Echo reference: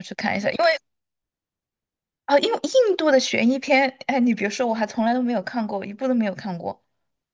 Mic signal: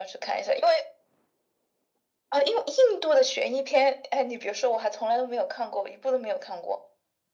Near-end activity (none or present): none